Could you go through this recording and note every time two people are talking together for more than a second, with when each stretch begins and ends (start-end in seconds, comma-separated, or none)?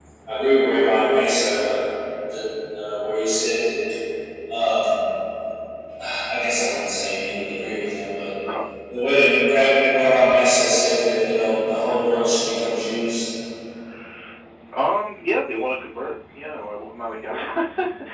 none